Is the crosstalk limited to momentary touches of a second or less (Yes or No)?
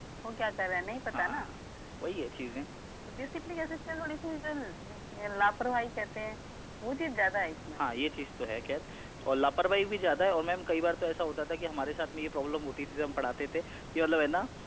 Yes